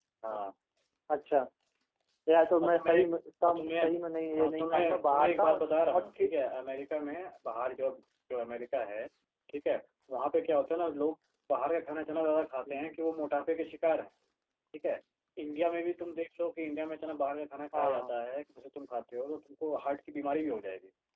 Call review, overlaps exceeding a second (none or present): present